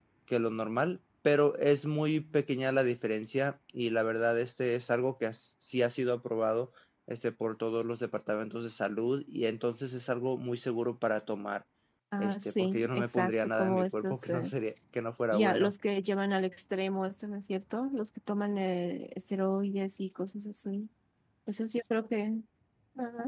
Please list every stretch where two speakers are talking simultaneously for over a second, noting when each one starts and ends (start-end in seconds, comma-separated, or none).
12.2-14.5